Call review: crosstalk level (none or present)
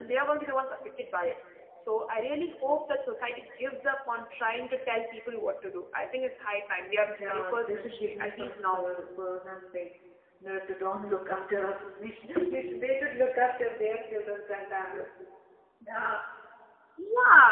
present